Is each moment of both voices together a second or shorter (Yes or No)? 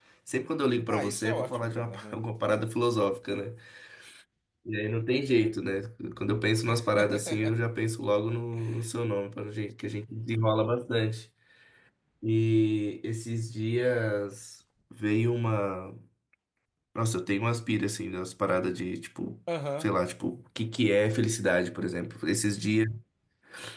No